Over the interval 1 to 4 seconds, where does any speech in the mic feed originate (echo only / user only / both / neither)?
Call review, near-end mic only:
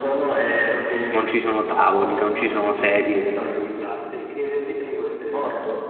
both